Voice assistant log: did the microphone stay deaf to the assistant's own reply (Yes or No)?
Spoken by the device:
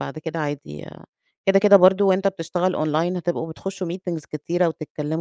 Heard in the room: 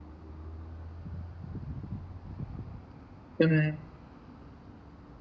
Yes